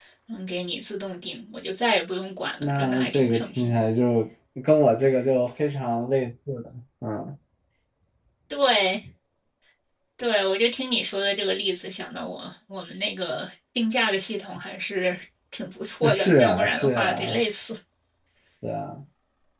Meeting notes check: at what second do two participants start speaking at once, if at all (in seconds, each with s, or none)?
2.6 s